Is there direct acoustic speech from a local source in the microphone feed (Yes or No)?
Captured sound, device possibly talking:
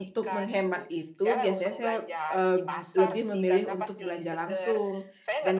Yes